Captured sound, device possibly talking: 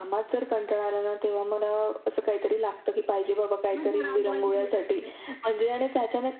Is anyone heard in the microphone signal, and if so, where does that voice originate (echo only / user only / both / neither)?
both